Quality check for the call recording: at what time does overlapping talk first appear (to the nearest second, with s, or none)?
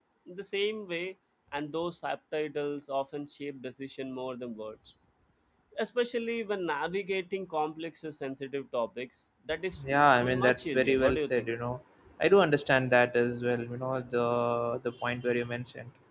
10 s